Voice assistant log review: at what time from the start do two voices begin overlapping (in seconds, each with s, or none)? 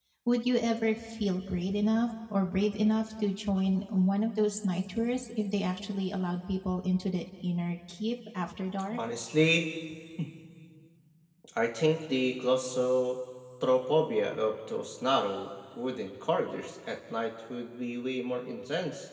none